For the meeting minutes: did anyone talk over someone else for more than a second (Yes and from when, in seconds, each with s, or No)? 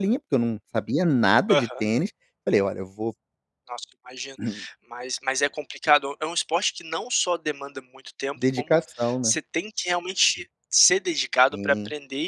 No